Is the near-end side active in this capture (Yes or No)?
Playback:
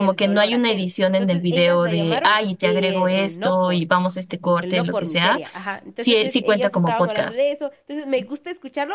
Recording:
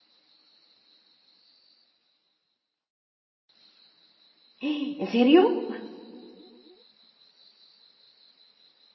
Yes